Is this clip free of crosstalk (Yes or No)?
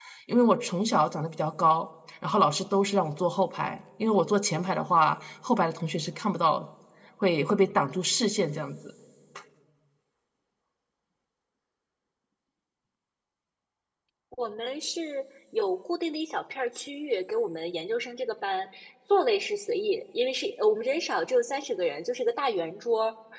Yes